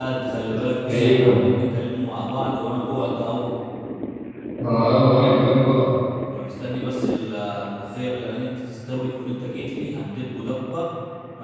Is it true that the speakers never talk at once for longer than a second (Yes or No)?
Yes